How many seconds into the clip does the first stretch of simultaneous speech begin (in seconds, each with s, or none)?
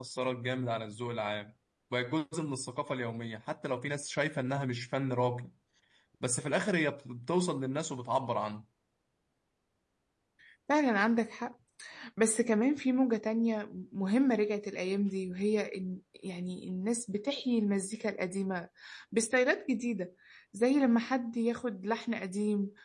none